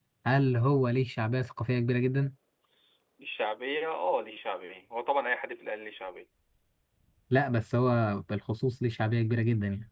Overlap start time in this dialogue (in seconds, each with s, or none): none